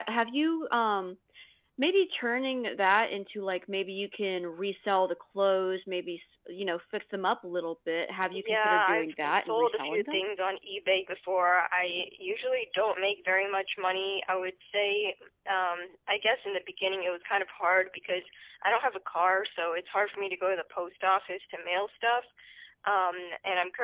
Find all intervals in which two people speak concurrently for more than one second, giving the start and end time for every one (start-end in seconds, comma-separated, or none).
8.3-10.2